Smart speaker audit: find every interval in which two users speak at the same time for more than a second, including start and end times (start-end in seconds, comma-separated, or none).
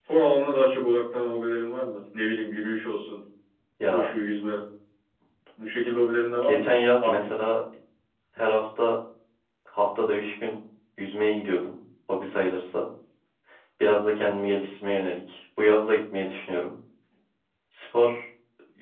none